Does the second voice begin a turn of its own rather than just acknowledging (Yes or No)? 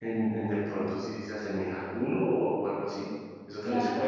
Yes